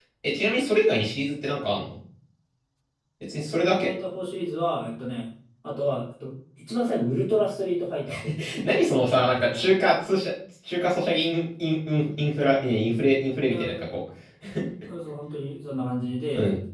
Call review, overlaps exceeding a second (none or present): none